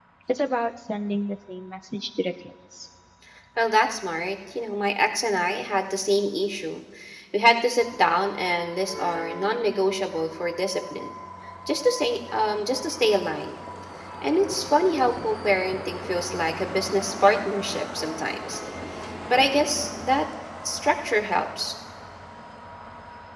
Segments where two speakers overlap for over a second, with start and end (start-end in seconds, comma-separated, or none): none